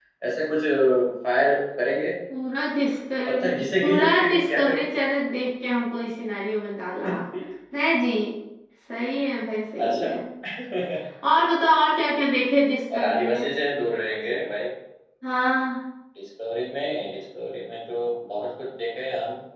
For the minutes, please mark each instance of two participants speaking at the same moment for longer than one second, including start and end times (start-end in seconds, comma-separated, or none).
3.3-4.9